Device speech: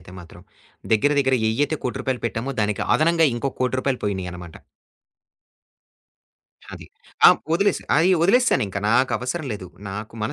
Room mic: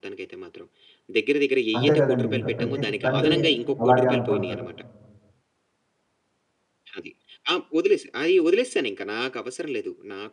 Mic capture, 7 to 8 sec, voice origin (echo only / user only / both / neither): echo only